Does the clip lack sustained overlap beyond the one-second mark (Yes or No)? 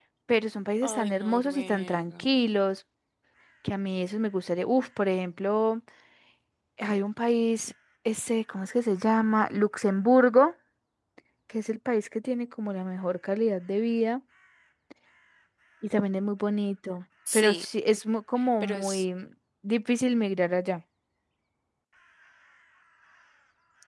No